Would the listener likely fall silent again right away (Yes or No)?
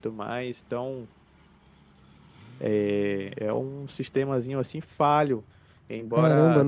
No